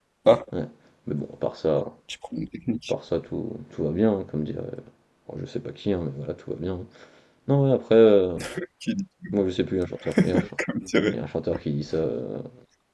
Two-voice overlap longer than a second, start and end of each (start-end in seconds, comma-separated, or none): none